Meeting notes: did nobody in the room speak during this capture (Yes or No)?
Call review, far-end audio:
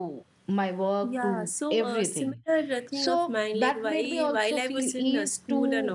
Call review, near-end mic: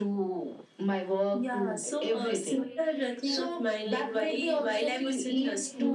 No